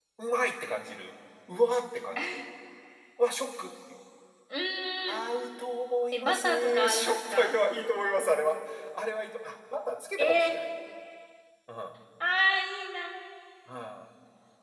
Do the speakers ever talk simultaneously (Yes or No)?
Yes